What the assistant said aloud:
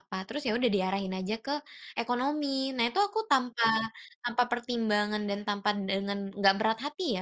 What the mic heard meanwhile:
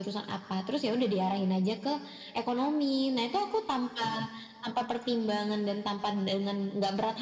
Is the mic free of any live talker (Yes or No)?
Yes